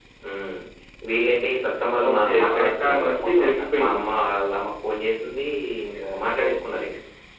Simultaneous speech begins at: 2.1 s

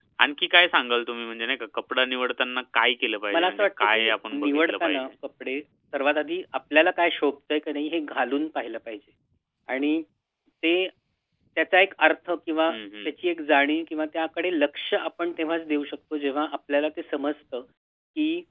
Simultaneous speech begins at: 3.3 s

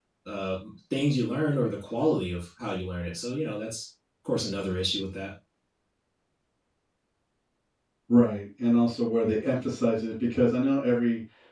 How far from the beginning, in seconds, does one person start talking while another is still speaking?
none

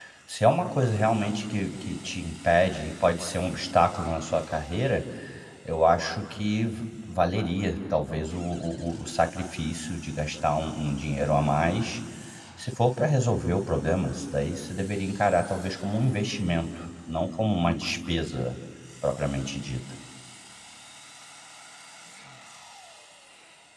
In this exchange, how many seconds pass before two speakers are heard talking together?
none

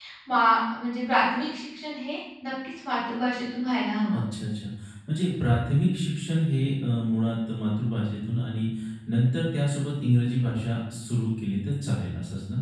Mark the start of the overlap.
none

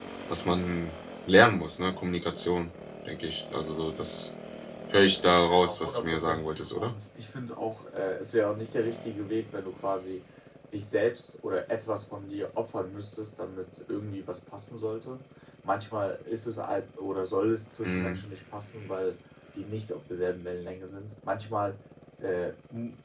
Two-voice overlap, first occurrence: 5.4 s

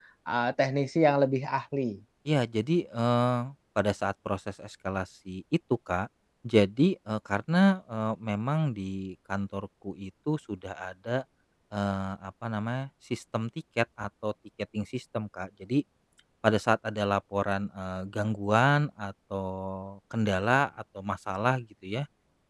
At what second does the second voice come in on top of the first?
none

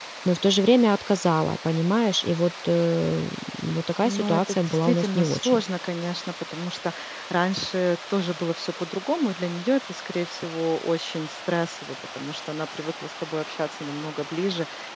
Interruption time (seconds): 4.0 s

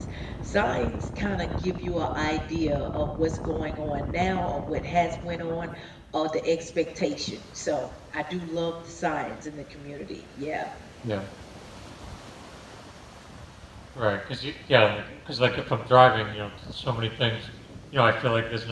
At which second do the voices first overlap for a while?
none

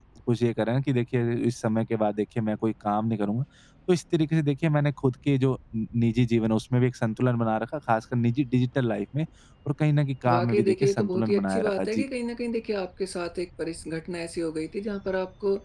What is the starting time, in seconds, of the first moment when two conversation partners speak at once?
10.3 s

